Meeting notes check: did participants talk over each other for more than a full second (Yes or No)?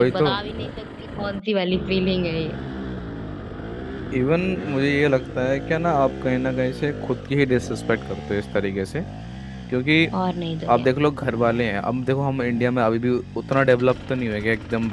No